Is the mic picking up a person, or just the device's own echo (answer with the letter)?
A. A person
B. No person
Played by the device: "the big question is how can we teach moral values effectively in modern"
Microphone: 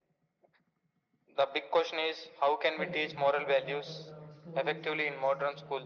A